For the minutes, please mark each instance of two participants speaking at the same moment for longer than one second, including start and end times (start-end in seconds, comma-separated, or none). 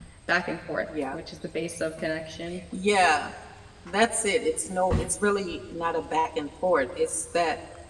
none